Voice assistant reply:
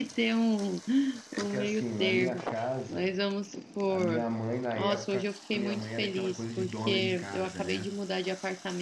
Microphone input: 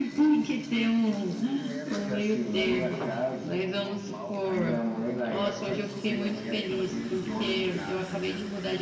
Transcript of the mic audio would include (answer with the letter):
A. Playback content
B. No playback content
A